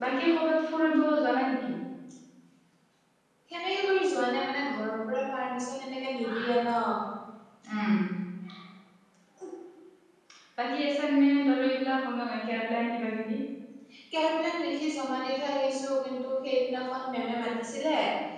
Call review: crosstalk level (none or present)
none